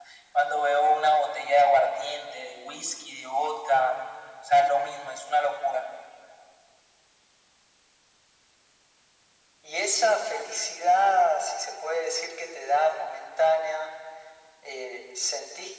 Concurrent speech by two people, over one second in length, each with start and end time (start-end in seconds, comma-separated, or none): none